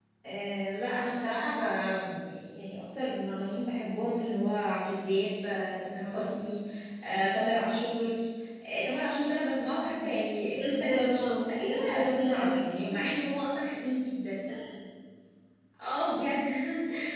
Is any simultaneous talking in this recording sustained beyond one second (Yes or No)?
Yes